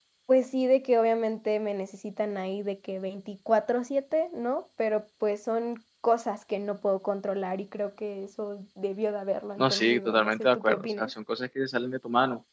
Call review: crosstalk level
present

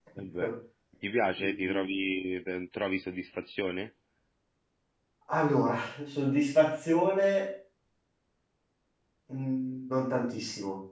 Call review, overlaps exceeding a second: none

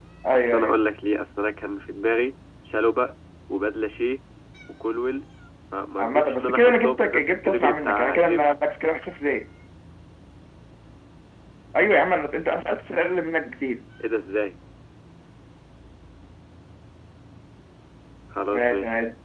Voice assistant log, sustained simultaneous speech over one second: present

